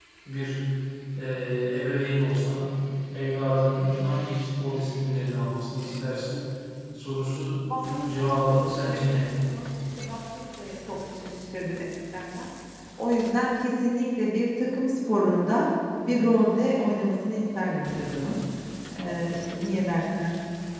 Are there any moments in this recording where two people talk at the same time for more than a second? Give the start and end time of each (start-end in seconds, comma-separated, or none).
7.8-9.2